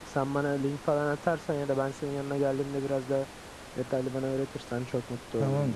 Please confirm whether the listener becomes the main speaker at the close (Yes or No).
Yes